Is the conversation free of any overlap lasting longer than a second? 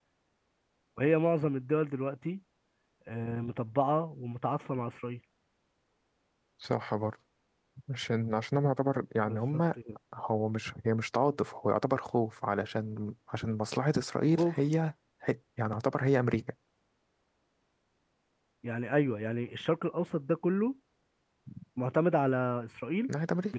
Yes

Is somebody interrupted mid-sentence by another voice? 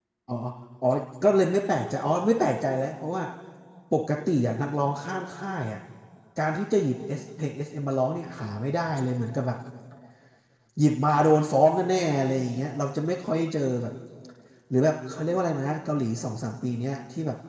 No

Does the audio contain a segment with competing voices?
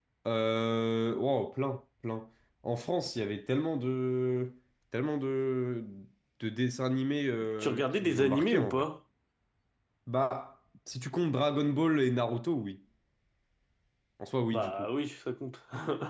Yes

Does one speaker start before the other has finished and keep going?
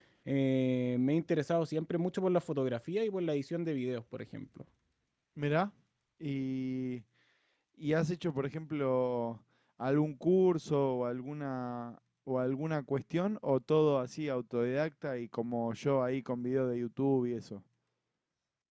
No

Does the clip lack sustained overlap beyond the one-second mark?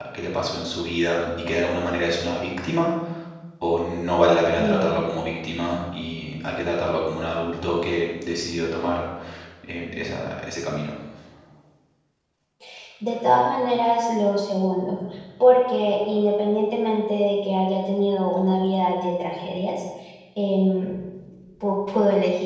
Yes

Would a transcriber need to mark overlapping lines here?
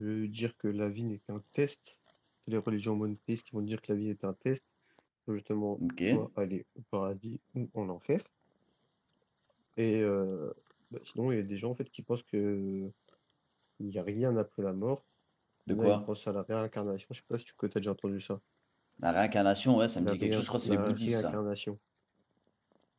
Yes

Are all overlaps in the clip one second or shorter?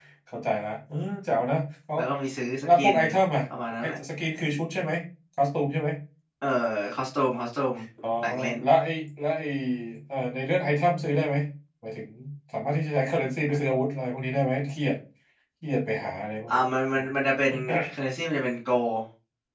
Yes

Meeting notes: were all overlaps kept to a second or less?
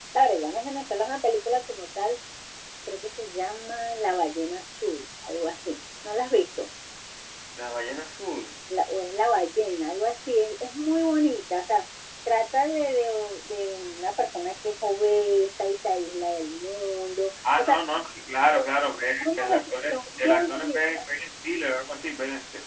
No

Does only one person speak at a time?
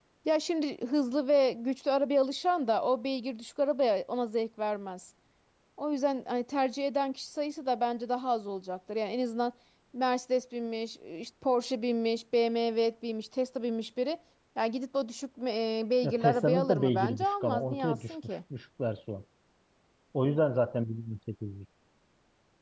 No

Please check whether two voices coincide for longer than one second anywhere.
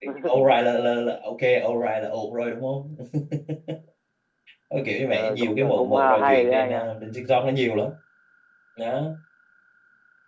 Yes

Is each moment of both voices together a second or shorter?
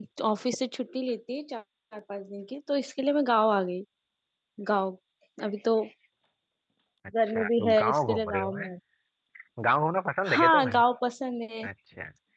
No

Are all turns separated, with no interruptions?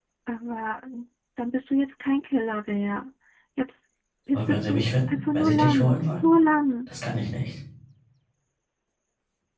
No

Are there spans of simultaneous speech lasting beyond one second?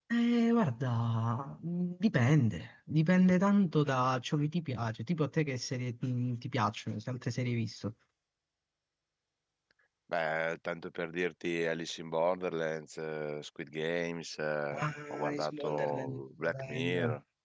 Yes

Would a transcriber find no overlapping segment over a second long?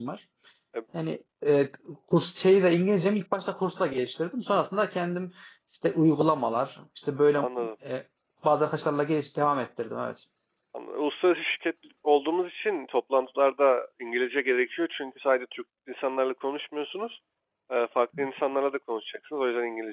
Yes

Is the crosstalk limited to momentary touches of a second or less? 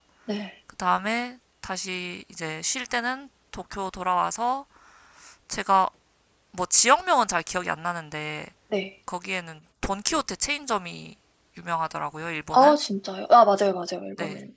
Yes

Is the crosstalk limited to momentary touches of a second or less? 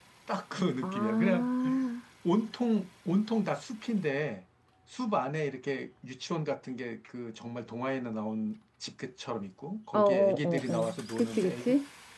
No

